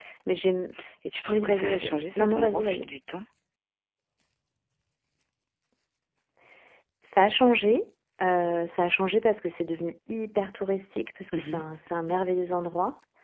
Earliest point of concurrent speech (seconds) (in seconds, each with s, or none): 1.3 s